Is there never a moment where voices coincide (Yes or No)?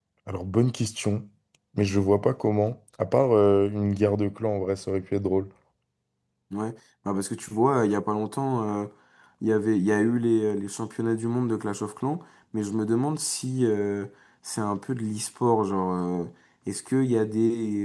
Yes